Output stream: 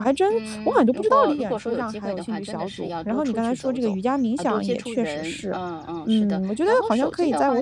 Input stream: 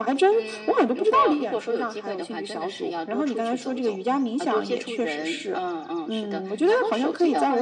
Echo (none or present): present